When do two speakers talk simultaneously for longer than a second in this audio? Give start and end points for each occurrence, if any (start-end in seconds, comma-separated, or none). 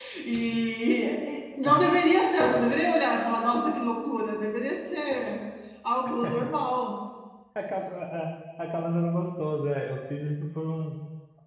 none